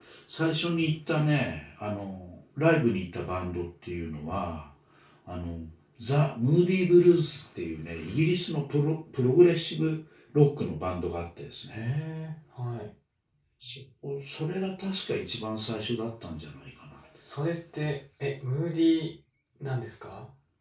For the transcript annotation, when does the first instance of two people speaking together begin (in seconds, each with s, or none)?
none